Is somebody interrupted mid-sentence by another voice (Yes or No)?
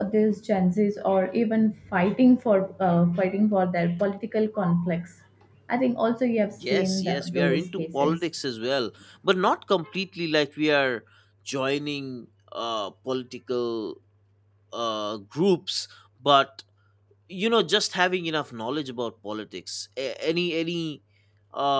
Yes